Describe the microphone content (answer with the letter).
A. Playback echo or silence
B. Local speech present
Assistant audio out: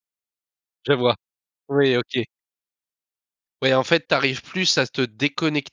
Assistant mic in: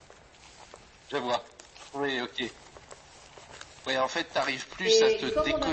B